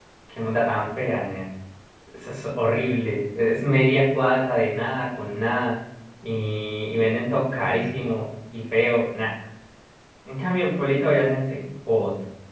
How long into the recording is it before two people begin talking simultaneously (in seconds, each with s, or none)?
none